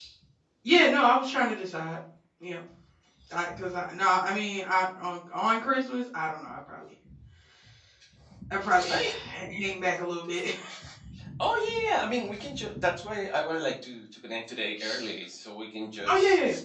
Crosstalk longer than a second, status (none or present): none